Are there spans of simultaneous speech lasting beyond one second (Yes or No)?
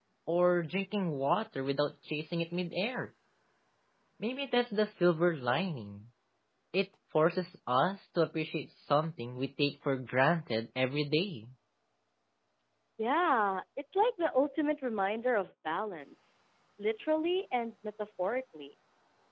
No